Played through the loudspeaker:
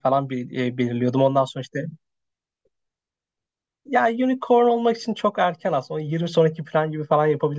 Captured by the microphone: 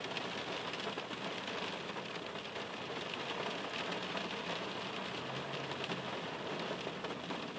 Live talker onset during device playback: none

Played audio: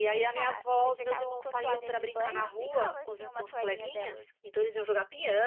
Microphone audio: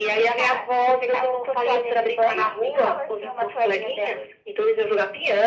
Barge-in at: none

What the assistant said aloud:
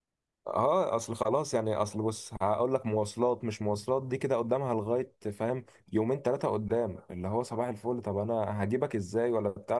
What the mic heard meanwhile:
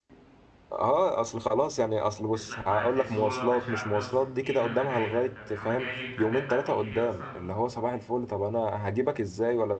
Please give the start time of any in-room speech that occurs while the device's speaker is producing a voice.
2.3 s

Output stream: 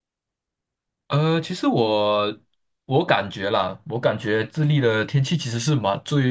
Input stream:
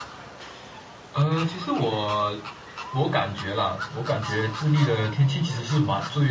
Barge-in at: none

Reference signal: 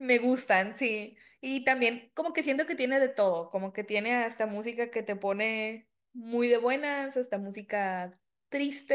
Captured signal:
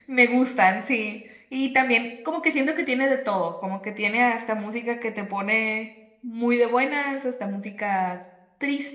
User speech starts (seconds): none

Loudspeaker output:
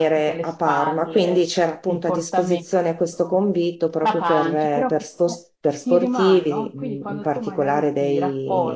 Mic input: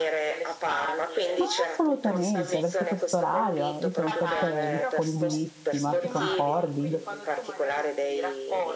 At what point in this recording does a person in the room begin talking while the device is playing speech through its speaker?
1.3 s

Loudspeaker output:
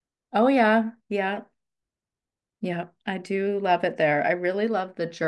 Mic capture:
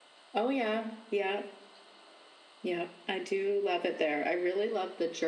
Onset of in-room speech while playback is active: none

